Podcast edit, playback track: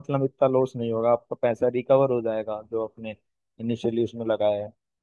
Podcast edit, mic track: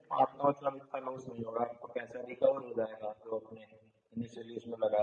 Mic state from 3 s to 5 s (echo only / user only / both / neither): echo only